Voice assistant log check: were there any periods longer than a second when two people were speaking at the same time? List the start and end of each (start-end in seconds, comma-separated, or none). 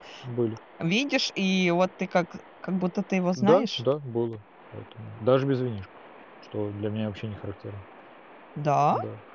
none